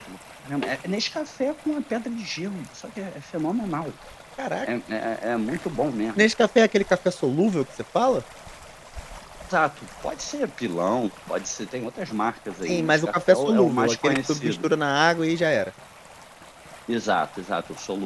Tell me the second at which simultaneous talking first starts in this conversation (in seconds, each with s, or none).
12.7 s